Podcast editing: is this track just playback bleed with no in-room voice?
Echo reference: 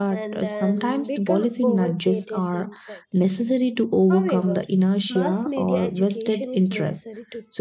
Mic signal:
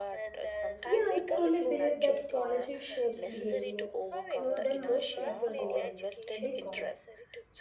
No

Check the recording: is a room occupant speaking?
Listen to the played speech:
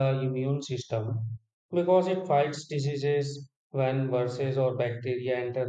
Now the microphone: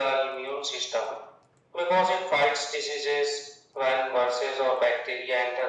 No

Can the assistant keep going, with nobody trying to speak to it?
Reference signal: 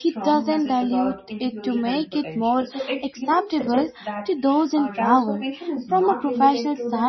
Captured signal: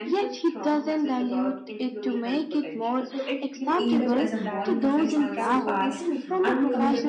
No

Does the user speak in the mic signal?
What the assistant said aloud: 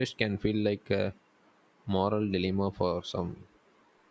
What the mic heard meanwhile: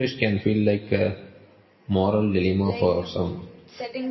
Yes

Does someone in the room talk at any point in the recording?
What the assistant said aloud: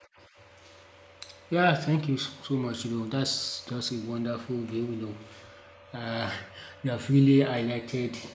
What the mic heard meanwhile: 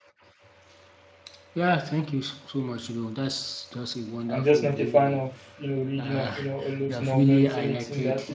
Yes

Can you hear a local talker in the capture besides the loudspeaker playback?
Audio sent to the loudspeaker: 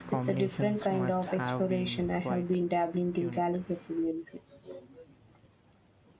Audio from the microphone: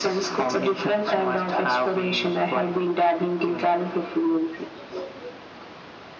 No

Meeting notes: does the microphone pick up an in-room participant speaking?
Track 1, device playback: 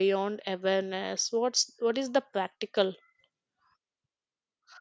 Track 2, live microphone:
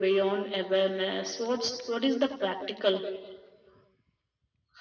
No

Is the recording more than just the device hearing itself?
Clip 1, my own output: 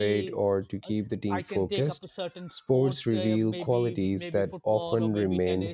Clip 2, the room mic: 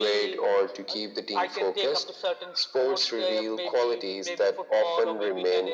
No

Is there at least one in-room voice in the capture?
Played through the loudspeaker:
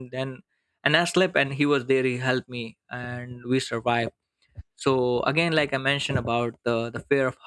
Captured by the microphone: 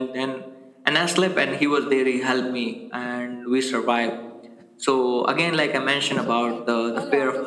Yes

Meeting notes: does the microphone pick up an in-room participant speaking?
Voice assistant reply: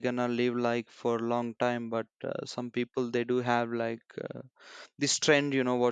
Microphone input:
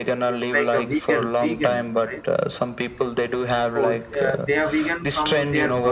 Yes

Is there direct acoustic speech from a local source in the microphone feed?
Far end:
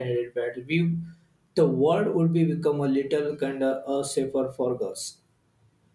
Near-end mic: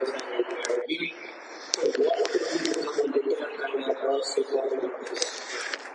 No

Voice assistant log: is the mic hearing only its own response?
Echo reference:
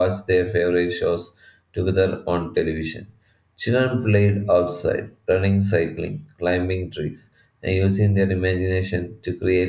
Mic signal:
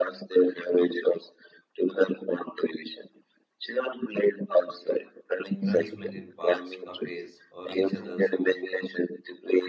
No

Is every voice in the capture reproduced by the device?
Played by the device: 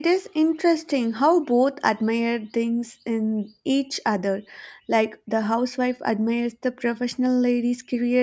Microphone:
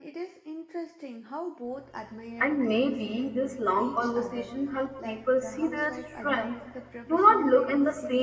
No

